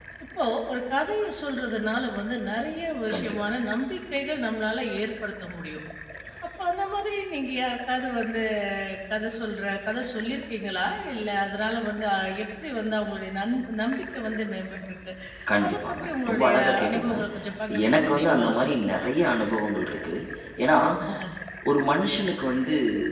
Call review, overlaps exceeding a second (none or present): present